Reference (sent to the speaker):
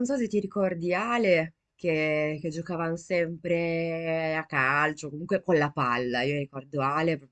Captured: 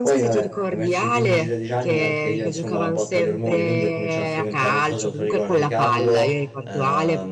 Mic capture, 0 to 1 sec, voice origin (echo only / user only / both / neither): both